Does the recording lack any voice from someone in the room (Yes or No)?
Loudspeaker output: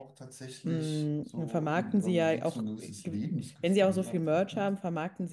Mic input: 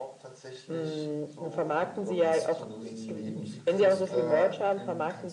No